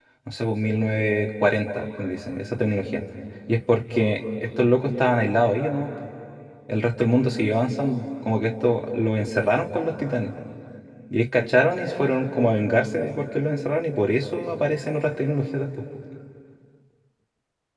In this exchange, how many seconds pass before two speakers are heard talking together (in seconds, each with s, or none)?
none